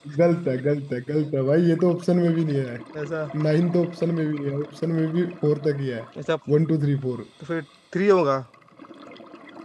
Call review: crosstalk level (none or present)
none